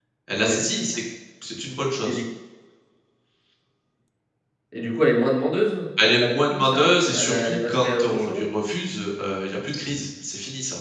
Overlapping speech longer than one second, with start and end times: 6.0-8.5

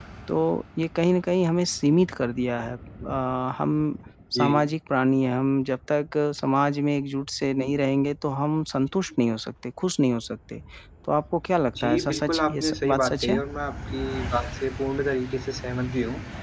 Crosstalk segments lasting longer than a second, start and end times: 11.8-13.4

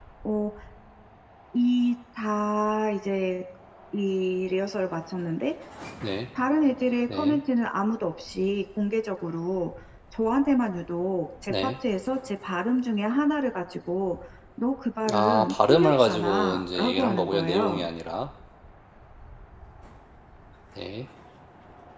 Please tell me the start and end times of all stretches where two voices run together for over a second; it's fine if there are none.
15.1-17.9

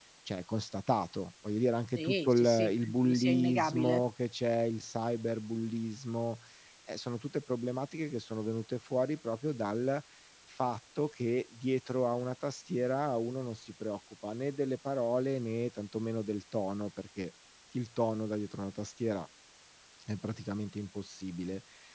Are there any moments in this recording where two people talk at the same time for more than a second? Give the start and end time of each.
2.0-4.0

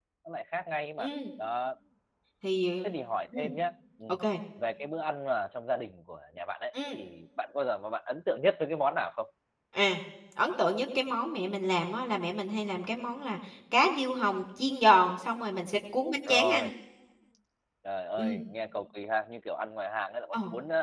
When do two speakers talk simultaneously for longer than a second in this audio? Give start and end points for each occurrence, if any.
none

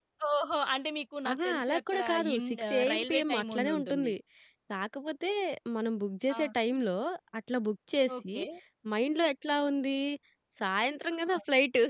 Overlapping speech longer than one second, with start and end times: 1.3-4.1

